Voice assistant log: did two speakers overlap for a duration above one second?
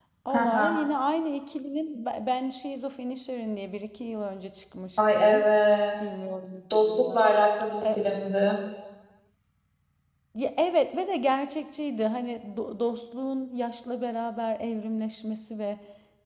No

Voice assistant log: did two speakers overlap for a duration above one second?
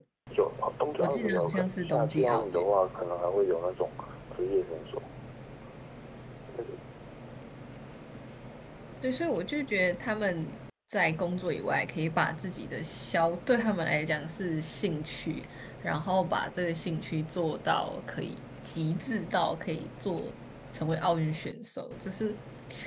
Yes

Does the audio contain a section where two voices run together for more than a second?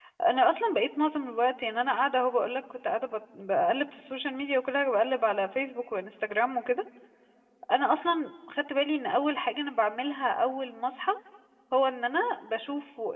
No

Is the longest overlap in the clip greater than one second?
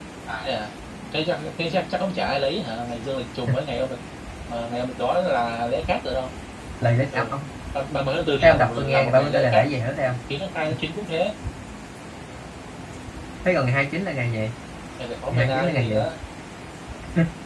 Yes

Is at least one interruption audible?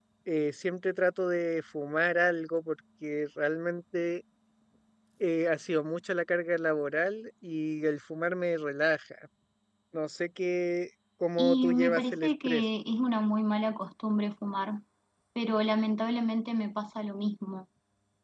Yes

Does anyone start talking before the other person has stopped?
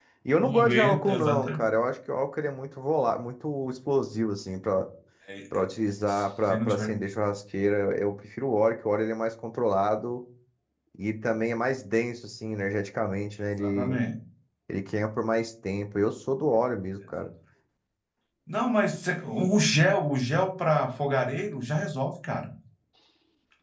Yes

